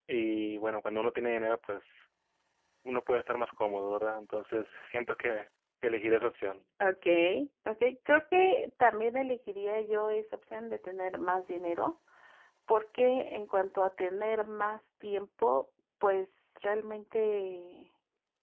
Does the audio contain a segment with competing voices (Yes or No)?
No